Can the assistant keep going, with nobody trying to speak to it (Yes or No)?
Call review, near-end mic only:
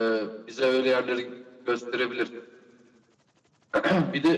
Yes